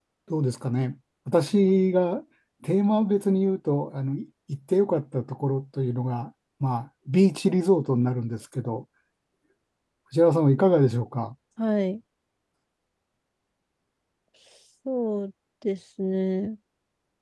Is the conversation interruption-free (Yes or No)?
Yes